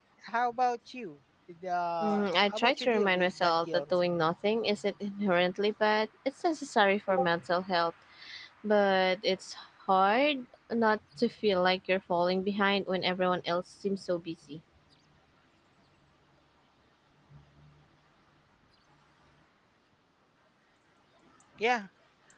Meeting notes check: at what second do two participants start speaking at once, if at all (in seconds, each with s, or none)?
2.0 s